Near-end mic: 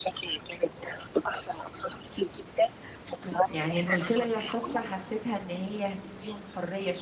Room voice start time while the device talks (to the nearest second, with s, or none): 3 s